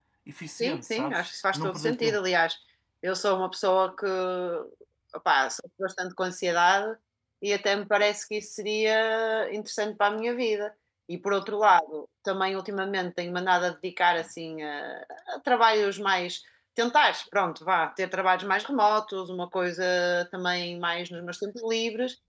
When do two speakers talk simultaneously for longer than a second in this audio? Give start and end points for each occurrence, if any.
0.6-2.2

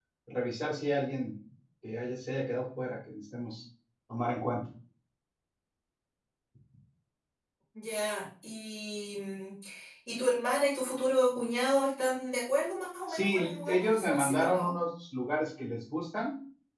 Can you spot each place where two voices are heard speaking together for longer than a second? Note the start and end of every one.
13.1-14.7

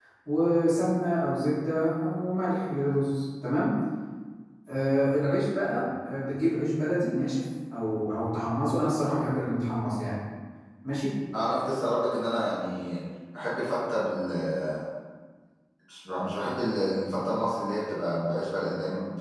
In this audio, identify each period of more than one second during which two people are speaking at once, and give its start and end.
none

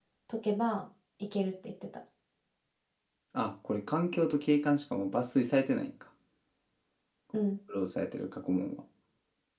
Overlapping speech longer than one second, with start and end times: none

